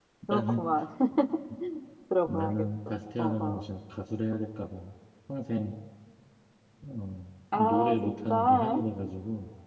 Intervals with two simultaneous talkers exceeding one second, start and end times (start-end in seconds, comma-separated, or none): 2.2-3.6, 7.5-8.8